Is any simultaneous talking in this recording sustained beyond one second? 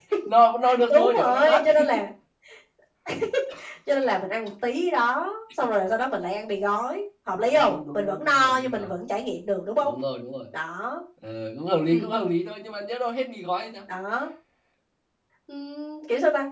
Yes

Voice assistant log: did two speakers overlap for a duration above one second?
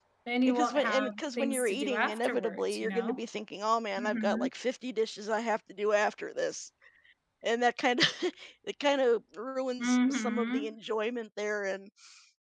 Yes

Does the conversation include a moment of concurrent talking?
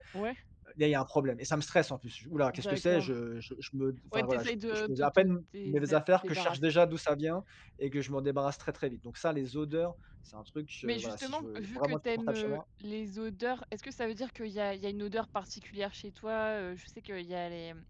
Yes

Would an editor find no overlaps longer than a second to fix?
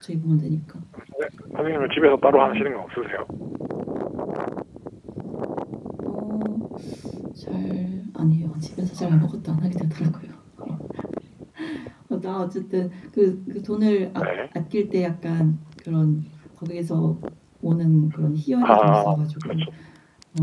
Yes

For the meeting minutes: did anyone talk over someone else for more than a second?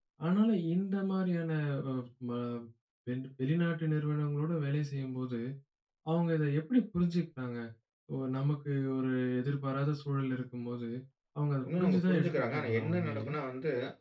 Yes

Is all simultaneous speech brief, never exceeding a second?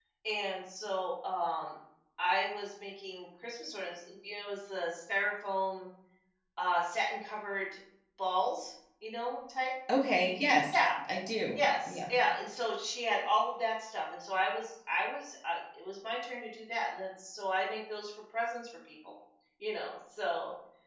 Yes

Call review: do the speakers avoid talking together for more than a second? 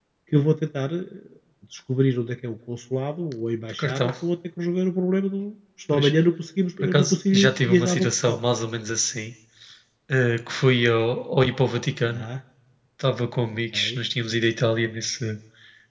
No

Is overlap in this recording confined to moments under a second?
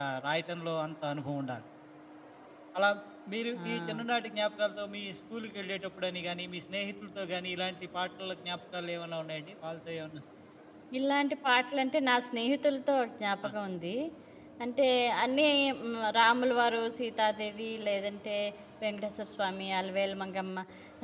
Yes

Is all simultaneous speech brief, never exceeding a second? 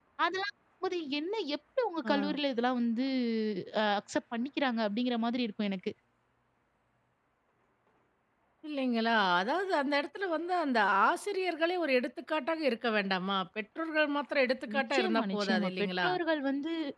No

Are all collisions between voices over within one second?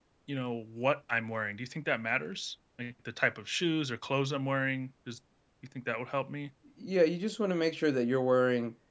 Yes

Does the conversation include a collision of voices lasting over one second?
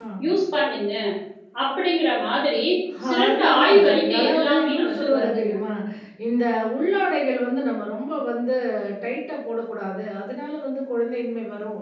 Yes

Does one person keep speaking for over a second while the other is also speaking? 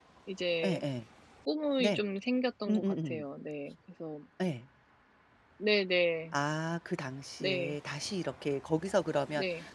No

